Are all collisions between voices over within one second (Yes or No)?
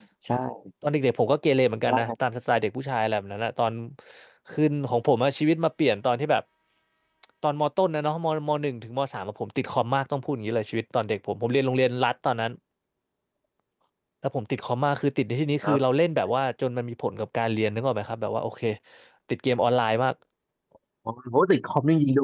Yes